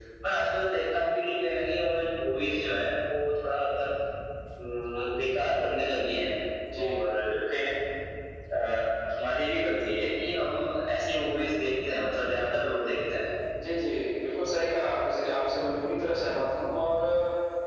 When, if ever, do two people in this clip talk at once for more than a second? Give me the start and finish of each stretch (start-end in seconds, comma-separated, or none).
none